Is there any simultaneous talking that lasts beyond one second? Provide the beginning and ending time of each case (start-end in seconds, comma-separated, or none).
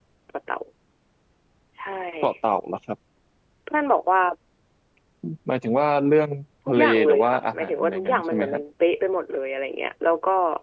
6.7-8.6